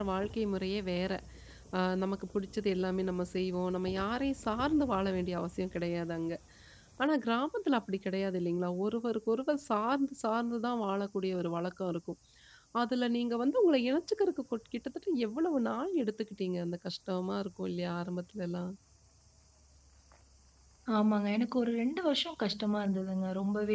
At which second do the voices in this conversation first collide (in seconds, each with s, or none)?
none